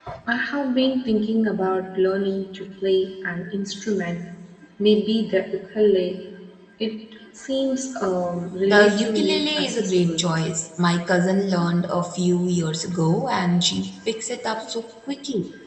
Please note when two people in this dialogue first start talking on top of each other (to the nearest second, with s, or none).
9 s